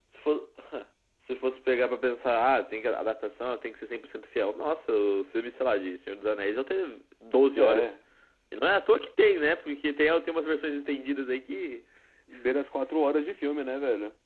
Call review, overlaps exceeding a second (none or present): none